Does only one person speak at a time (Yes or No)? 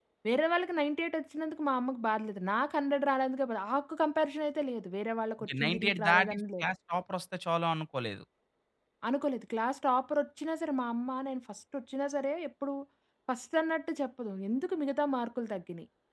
No